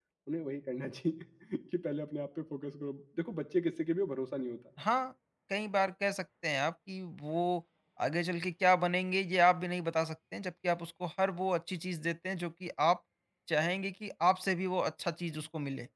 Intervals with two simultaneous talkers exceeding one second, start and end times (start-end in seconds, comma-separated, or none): none